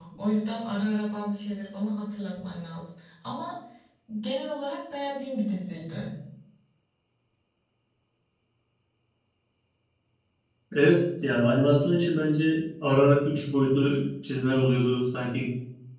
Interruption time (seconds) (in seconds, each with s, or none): none